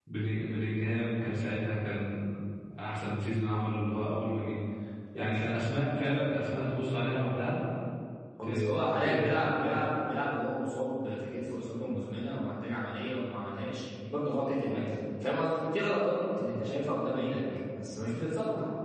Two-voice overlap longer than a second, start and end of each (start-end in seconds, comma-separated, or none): 8.4-9.8